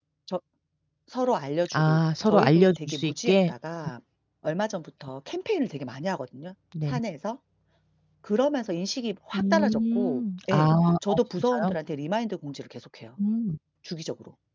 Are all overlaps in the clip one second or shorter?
No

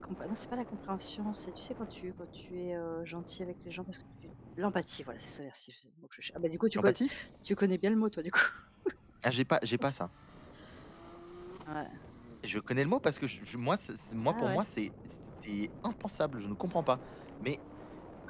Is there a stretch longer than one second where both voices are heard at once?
No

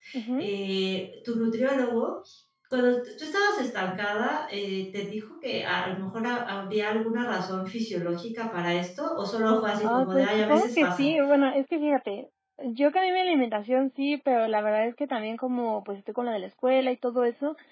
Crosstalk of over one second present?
Yes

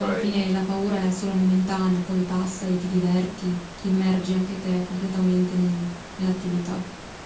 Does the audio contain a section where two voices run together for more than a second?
Yes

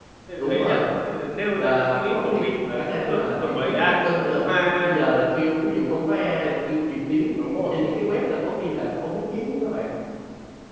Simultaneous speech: Yes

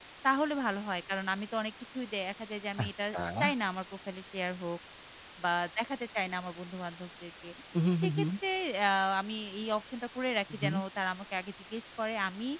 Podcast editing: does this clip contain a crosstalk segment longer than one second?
No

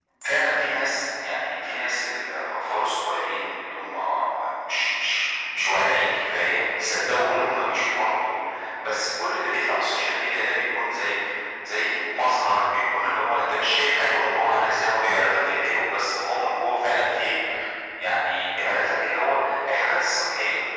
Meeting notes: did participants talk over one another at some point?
No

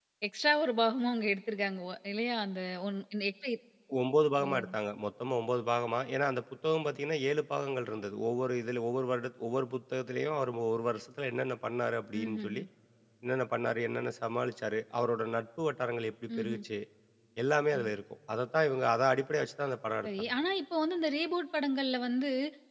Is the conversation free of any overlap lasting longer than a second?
Yes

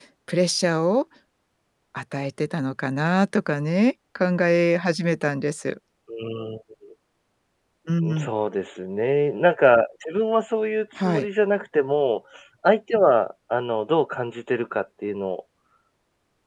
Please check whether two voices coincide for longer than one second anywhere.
No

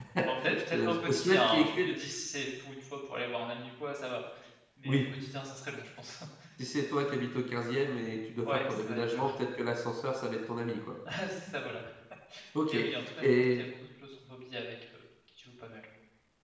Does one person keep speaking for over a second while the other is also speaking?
Yes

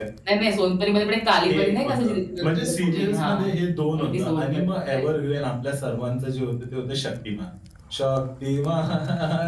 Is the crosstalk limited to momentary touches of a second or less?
No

